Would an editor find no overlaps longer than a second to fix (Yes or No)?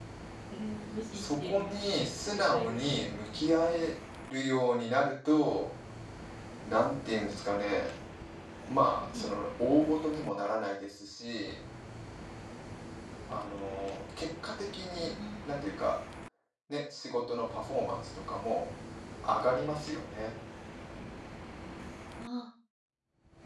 No